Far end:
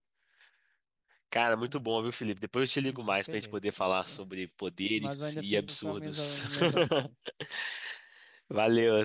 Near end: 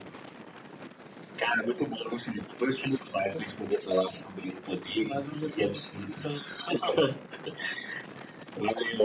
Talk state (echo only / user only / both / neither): echo only